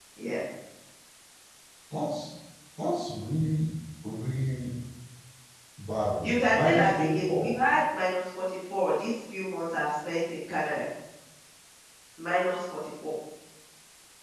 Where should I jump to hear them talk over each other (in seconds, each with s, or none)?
6.2 s